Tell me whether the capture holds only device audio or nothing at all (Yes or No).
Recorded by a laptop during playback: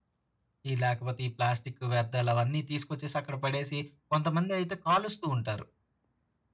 No